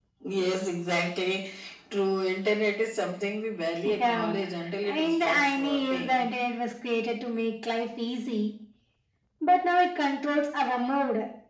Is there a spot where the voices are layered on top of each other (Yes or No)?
Yes